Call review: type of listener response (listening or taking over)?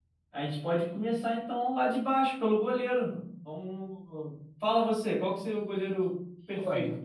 taking over